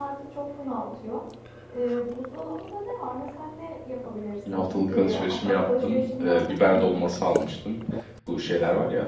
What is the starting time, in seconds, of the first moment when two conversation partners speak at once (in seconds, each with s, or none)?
4.5 s